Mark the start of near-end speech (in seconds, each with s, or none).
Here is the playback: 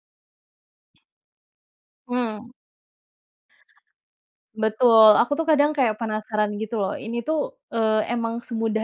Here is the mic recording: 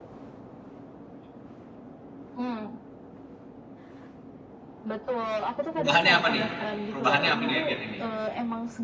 5.7 s